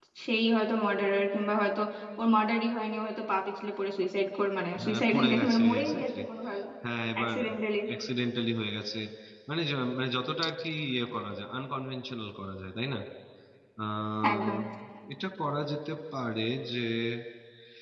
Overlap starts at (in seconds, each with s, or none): 4.8 s